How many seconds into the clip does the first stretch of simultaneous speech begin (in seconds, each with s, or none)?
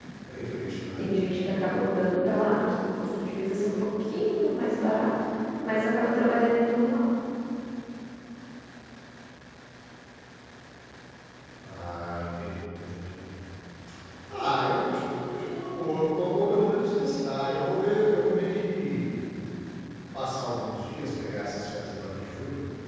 none